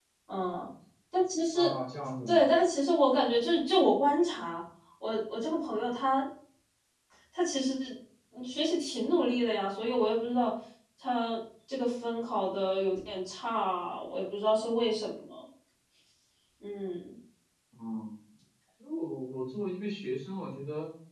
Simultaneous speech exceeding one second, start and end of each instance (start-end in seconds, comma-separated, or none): none